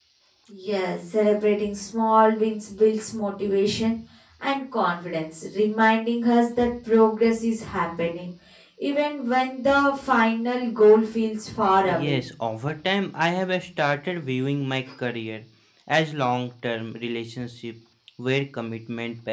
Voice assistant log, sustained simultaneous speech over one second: none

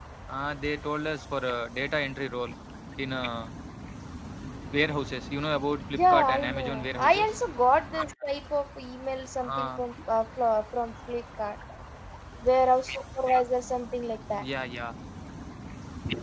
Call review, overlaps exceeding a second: present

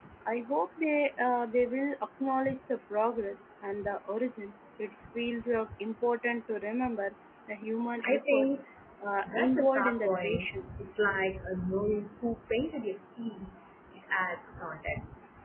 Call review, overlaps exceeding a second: present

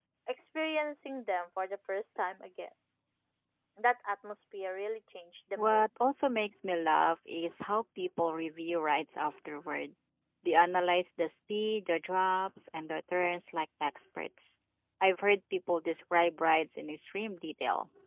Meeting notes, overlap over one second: none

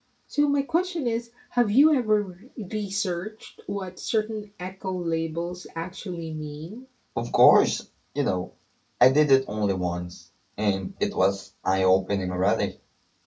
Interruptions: none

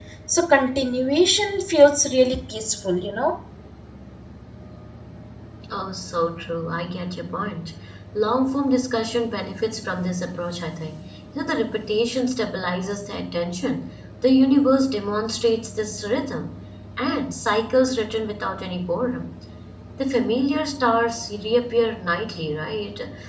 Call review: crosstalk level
none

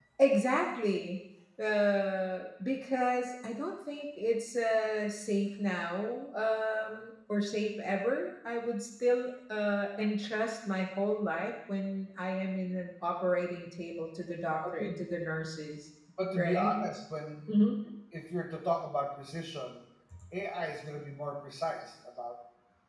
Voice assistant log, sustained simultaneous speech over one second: none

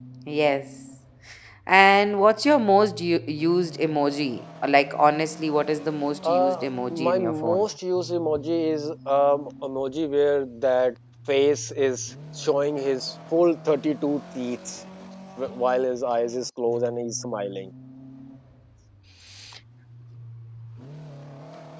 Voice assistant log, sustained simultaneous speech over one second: present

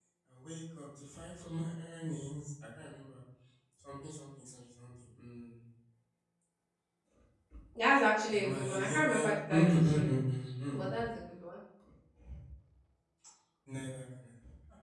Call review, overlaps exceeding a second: present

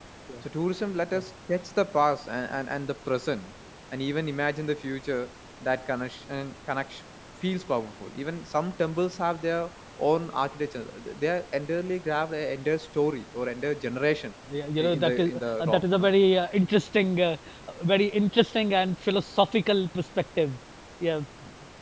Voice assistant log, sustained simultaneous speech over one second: present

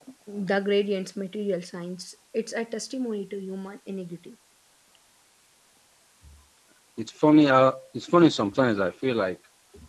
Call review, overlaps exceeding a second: none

